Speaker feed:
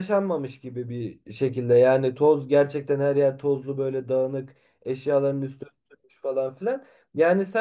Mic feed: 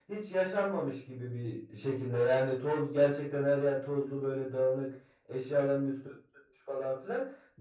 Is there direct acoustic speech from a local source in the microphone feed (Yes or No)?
No